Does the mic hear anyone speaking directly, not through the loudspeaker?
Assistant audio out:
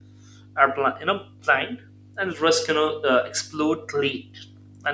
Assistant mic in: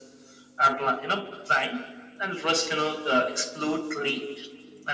No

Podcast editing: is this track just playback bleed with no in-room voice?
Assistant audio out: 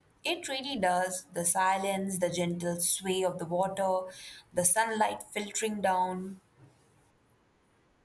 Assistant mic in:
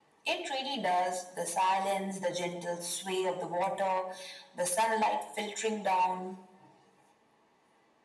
Yes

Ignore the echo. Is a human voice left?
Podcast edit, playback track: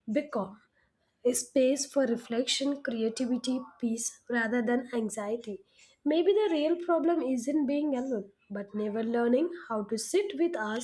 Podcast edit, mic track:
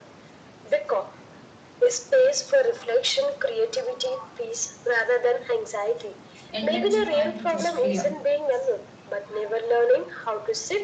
Yes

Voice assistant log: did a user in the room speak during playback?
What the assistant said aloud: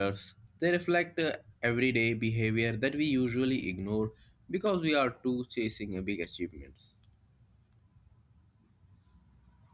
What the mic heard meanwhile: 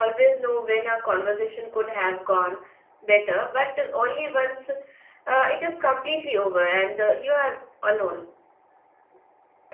Yes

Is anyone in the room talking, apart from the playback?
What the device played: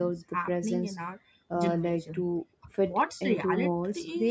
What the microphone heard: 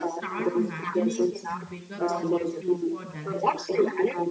Yes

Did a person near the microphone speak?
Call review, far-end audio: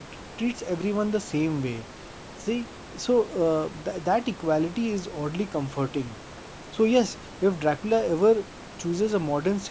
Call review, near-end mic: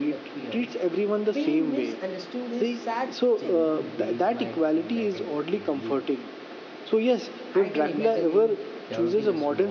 Yes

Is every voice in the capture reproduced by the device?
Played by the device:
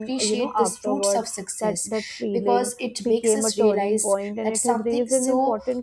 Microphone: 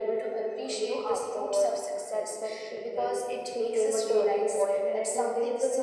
Yes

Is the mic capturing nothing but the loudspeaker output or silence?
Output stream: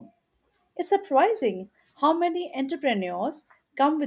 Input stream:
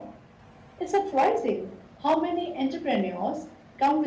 Yes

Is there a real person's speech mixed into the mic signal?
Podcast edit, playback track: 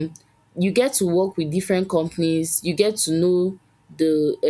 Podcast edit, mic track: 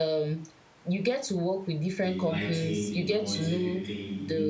Yes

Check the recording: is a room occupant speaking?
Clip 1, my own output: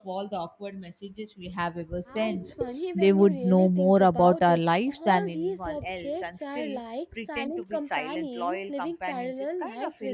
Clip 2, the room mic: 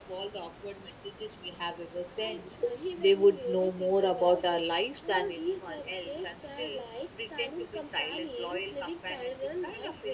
No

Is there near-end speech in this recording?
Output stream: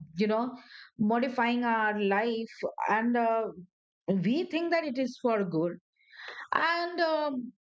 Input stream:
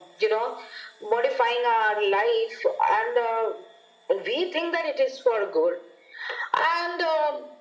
No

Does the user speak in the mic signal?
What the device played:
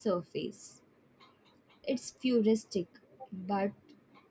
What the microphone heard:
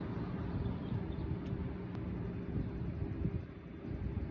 No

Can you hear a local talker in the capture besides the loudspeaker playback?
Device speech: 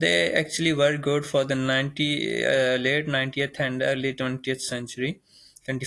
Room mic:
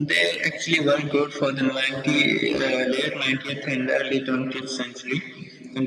No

